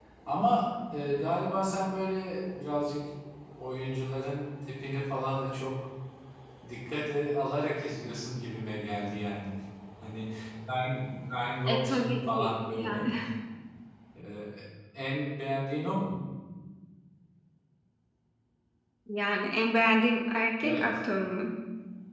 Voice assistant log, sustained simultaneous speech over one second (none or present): present